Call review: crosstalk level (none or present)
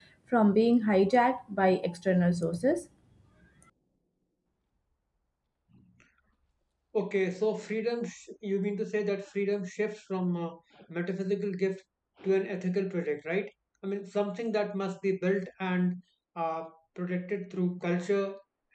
none